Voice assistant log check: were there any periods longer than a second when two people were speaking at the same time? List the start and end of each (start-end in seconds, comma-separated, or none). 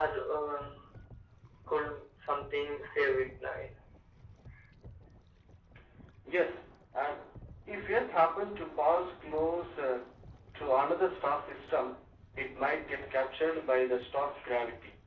none